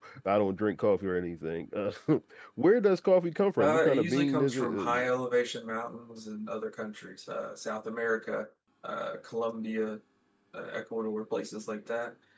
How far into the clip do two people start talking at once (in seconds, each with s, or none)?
3.6 s